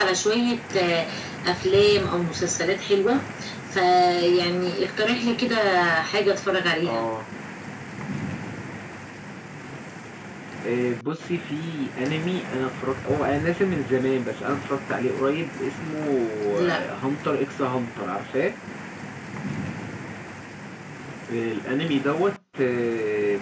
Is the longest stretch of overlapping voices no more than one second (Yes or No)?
Yes